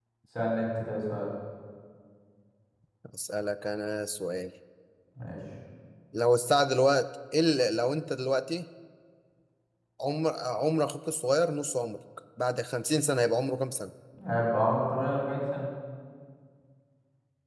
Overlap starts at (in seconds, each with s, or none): none